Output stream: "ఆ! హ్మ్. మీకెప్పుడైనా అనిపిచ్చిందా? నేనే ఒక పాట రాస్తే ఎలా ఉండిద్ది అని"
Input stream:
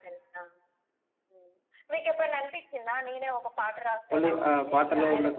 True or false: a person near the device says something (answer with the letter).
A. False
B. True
B